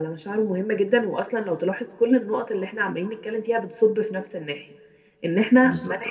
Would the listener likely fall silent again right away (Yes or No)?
Yes